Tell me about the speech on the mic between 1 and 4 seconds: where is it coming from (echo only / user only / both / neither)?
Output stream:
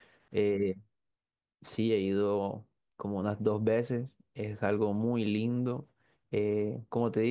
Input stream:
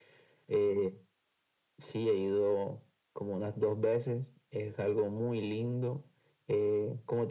echo only